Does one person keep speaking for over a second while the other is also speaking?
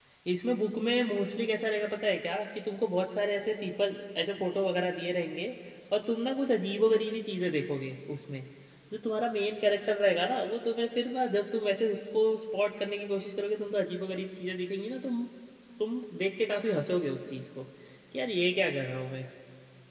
No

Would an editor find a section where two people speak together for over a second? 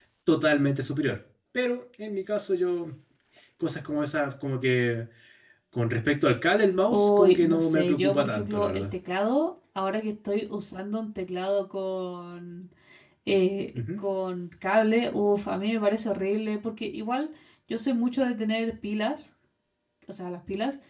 Yes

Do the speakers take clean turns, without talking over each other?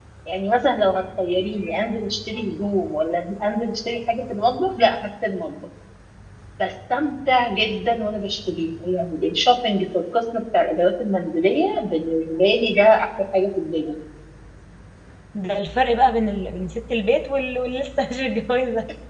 Yes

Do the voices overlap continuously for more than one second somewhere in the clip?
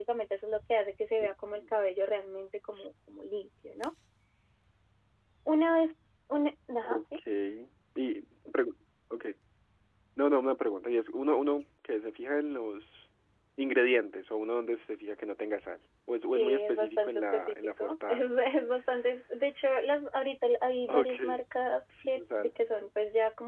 Yes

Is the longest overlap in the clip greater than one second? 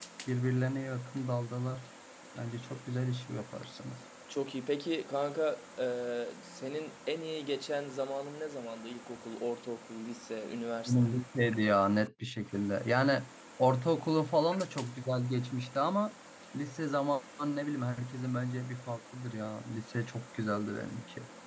No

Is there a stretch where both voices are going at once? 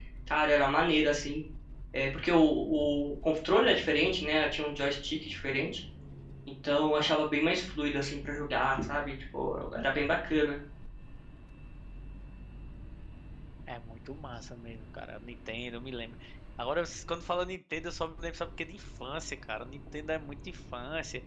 No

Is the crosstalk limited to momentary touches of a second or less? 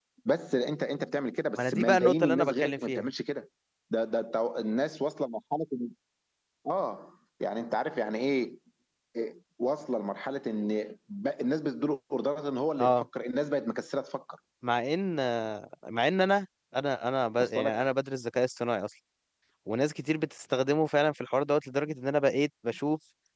No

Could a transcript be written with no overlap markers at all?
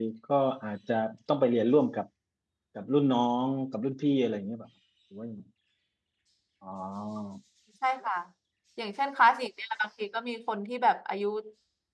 Yes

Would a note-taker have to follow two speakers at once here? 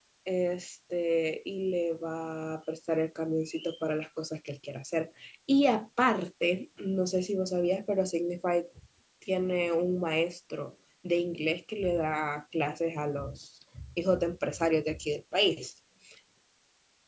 No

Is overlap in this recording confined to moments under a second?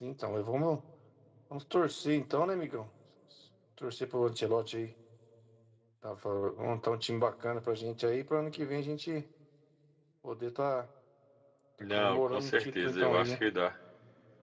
No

